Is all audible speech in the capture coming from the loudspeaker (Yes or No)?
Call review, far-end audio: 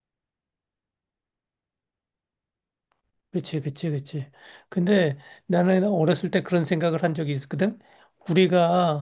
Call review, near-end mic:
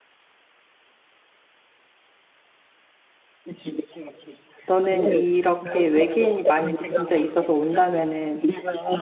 No